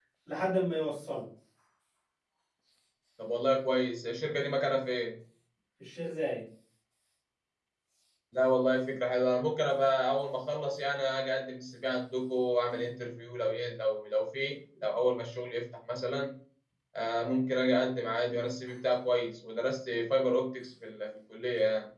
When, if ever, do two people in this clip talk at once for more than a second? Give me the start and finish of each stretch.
none

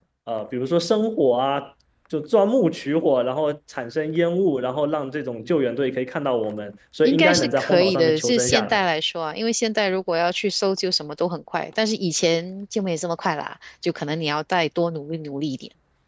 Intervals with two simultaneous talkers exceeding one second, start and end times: 7.0-8.8

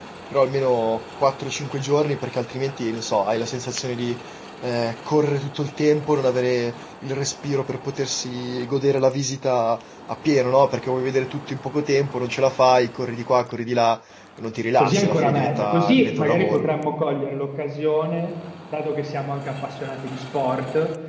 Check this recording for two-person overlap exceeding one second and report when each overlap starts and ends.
14.8-16.7

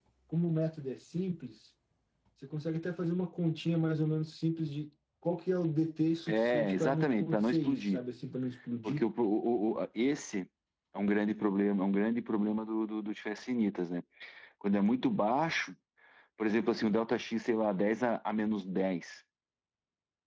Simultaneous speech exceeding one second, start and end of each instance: 6.3-8.0

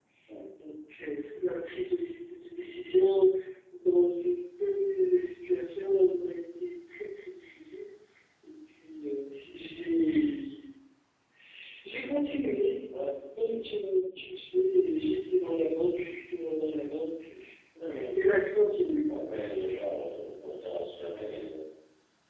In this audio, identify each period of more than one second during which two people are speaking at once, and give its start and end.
none

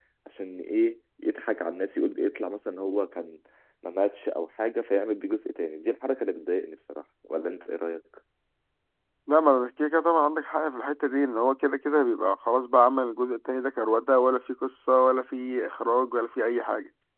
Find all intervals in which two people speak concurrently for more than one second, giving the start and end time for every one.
none

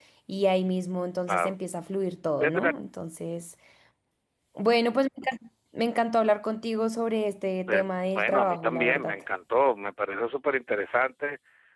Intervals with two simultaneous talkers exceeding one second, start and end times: 7.7-9.2

